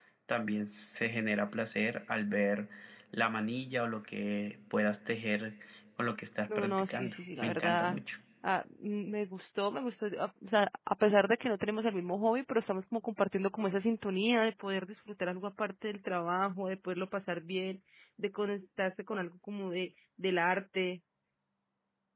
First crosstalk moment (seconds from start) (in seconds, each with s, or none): 6.6 s